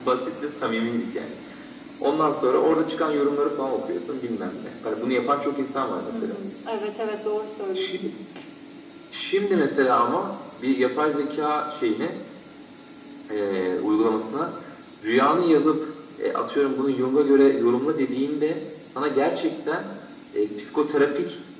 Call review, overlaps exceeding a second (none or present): none